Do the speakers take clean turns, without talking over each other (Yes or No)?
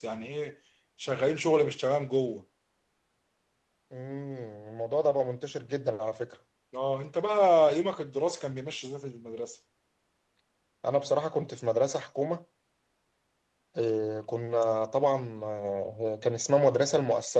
Yes